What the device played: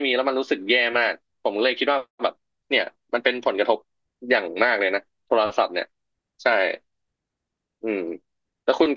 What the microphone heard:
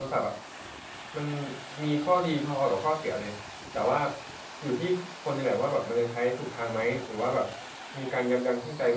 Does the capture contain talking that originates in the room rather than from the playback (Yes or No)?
Yes